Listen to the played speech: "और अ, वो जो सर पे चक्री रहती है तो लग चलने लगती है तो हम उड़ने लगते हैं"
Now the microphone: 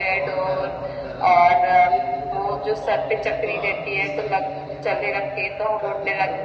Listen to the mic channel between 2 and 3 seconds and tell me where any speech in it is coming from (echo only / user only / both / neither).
both